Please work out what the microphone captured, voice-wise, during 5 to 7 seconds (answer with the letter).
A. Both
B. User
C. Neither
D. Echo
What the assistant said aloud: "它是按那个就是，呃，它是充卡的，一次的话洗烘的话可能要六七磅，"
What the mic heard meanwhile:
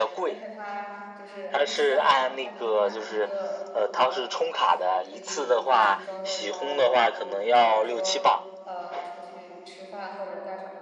A